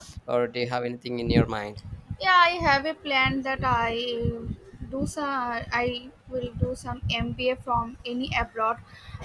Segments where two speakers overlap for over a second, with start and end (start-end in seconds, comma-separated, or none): none